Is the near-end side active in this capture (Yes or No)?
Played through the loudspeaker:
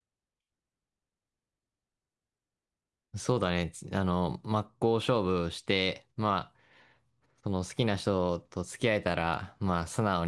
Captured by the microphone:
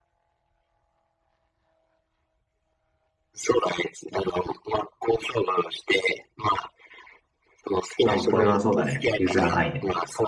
Yes